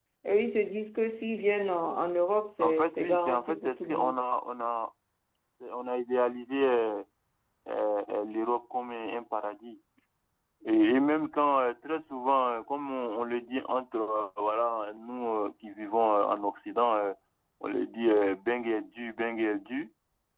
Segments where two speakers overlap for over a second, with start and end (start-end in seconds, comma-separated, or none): 2.6-4.2